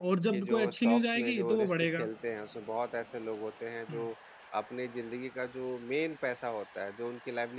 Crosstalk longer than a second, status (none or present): present